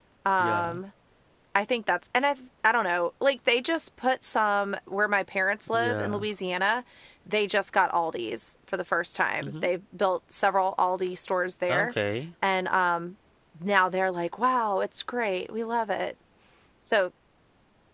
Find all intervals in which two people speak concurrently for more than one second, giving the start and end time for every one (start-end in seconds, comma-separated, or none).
none